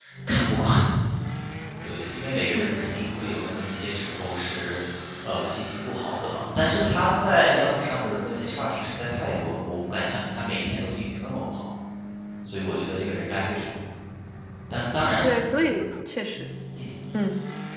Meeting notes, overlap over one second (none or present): none